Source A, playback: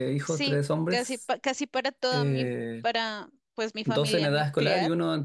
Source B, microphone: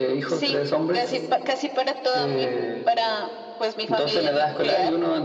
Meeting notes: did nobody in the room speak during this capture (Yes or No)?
Yes